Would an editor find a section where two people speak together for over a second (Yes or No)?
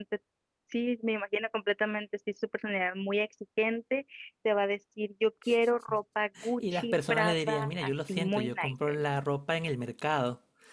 Yes